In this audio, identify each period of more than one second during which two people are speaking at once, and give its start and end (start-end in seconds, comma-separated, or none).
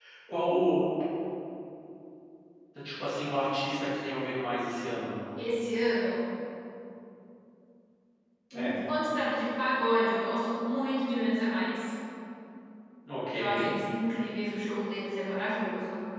none